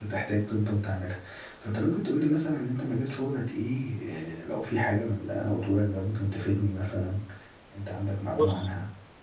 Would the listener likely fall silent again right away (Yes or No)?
No